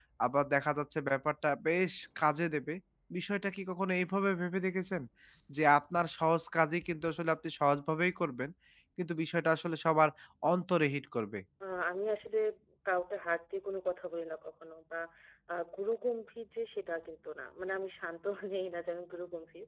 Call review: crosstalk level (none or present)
none